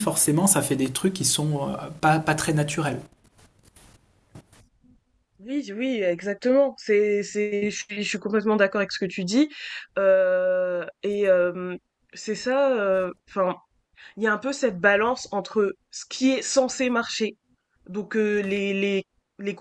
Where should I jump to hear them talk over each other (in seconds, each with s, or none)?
none